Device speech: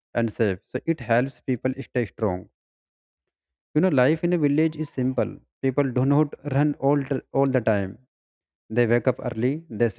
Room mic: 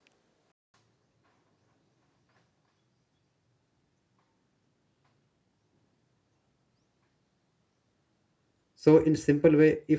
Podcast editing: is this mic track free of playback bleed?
Yes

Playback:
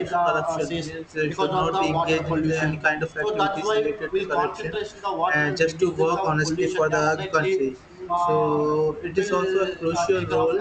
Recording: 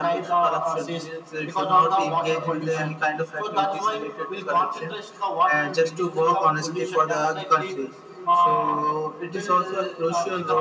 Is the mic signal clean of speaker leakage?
No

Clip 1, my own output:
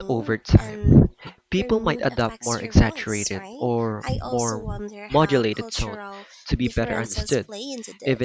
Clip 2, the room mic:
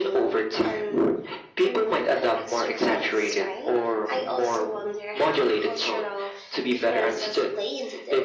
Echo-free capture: No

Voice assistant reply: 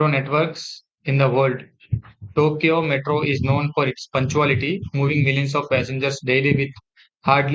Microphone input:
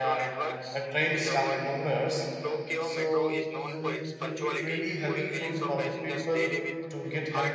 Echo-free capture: No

